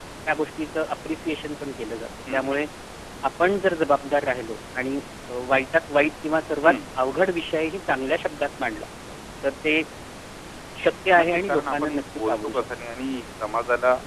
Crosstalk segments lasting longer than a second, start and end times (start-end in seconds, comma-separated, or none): 11.2-12.6